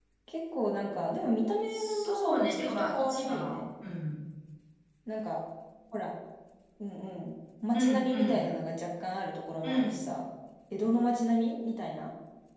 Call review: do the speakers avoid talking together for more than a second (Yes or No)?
No